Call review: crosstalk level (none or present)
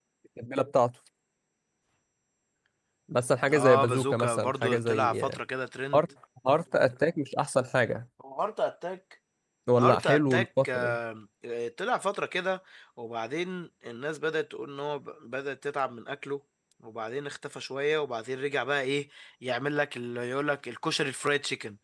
present